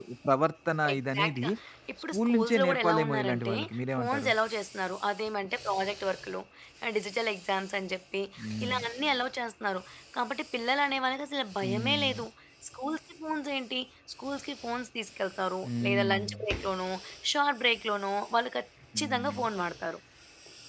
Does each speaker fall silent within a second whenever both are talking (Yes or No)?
No